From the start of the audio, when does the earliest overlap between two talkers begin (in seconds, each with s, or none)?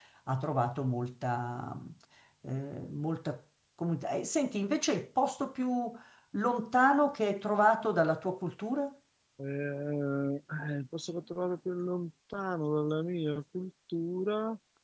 none